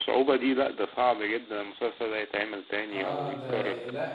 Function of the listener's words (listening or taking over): taking over